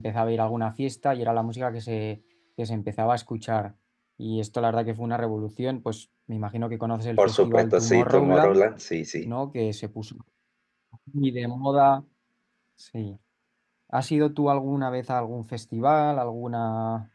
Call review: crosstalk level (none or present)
present